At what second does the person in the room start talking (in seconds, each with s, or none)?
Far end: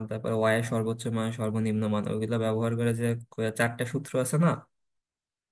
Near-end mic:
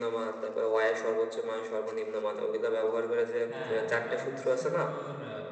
3.5 s